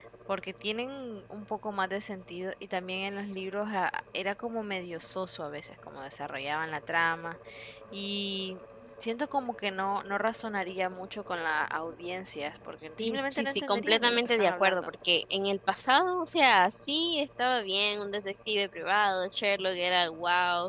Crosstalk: present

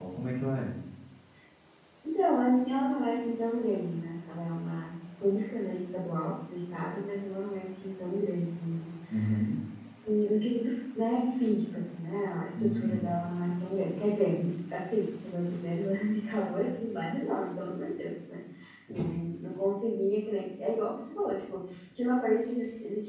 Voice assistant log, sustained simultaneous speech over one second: none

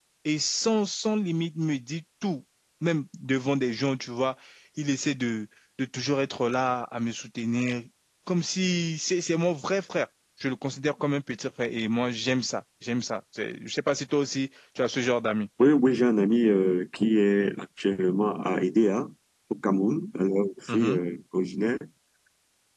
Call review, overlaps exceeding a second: none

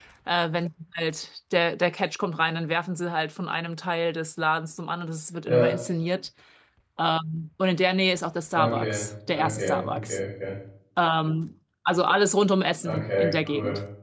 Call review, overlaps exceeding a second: present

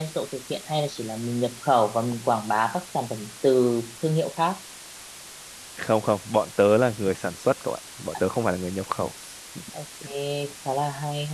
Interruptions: none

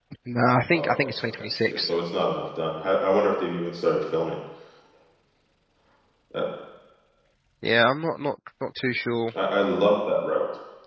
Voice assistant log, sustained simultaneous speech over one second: present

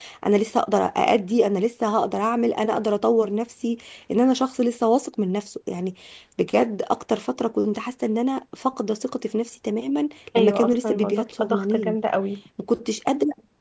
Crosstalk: present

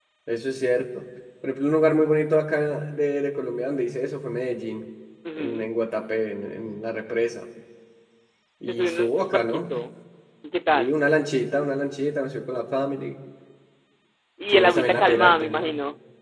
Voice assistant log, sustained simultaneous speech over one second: present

